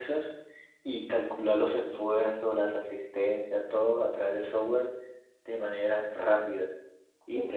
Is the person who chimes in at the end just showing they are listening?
No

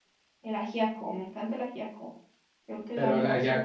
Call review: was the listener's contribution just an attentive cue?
No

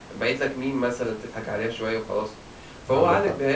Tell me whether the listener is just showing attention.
Yes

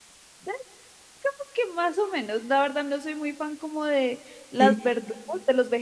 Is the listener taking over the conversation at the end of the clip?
No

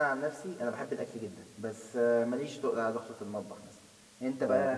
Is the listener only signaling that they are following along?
No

